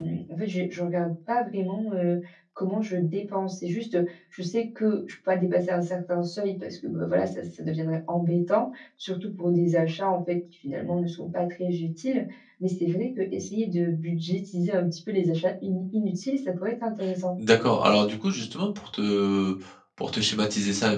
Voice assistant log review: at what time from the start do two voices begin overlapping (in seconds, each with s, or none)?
none